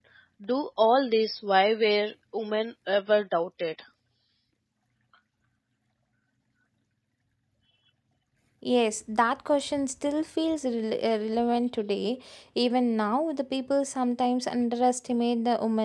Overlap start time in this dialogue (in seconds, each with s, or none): none